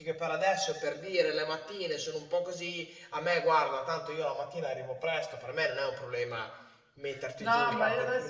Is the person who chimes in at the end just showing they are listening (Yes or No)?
No